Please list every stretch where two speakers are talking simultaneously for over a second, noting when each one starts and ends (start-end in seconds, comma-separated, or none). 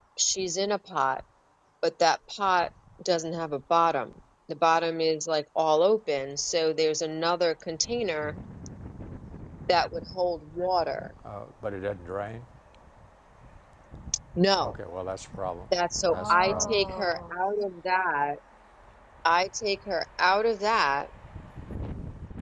16.1-17.3